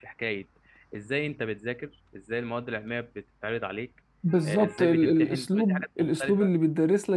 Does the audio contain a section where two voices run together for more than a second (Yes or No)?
Yes